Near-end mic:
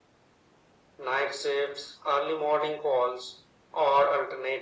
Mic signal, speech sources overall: echo only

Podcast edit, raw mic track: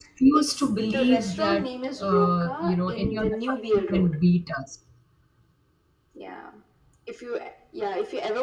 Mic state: both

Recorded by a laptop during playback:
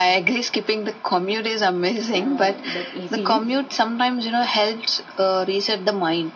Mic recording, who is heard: both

